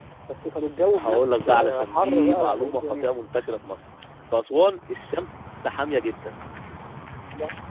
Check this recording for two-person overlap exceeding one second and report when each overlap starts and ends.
1.0-3.1

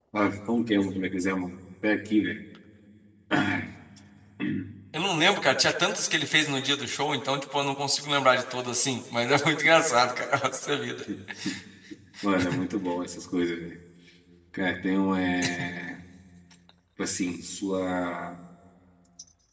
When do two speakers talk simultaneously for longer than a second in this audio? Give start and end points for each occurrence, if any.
none

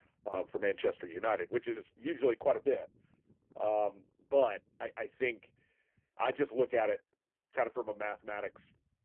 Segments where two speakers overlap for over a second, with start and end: none

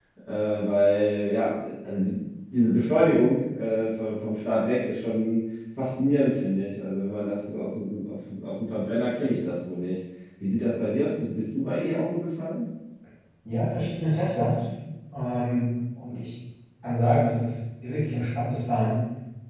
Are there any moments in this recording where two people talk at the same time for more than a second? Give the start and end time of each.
none

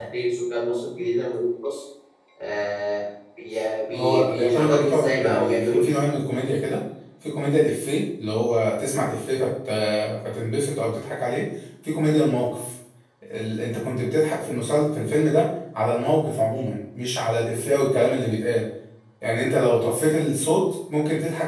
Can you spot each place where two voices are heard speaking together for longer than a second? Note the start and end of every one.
3.9-5.9

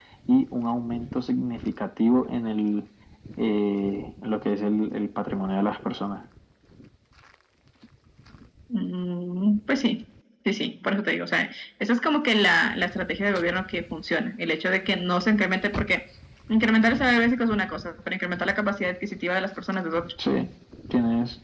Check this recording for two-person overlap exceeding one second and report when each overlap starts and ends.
none

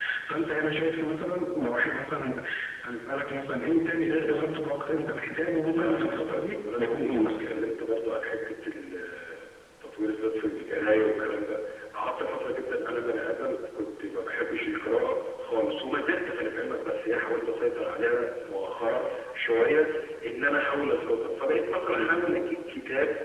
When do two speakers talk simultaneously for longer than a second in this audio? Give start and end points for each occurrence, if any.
5.6-7.4

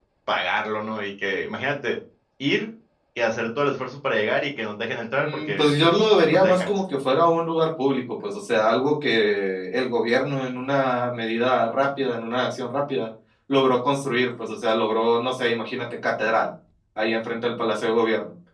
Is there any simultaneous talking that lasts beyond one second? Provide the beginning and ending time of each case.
5.2-6.8

